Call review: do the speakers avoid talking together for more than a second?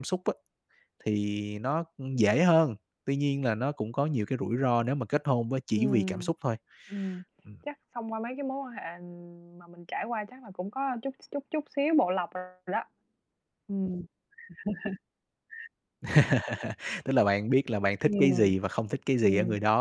Yes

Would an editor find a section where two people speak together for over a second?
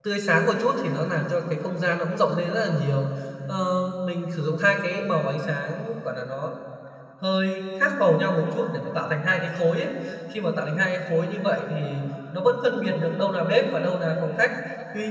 No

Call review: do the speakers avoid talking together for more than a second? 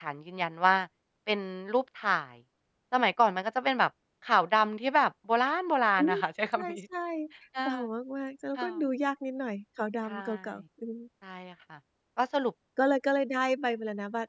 Yes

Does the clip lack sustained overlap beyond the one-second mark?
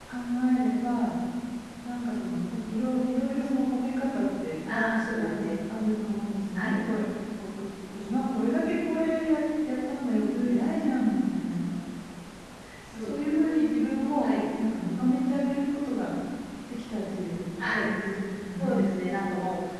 Yes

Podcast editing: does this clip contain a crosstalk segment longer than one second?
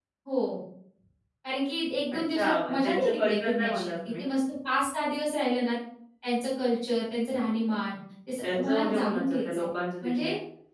Yes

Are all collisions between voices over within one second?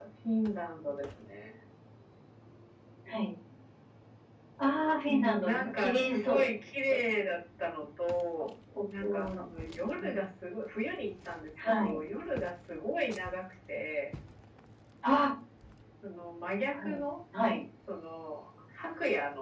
No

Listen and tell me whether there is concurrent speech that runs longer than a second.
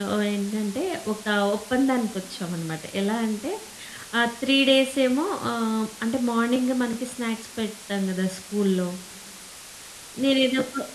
No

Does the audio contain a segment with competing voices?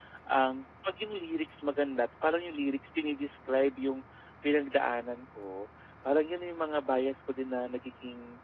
No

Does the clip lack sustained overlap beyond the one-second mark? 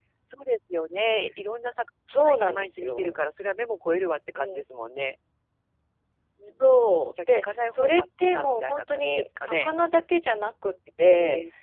No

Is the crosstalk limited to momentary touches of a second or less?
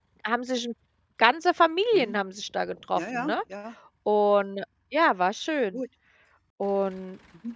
Yes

